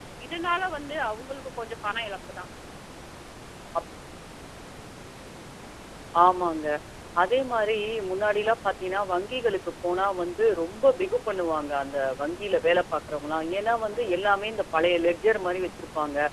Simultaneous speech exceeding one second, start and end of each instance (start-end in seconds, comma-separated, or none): none